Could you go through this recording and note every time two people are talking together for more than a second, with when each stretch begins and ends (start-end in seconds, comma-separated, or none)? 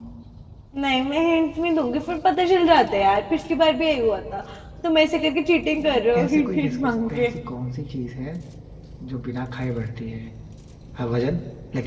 5.8-7.3